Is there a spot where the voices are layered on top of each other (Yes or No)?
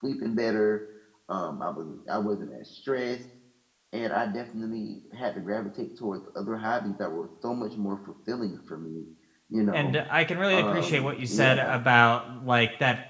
Yes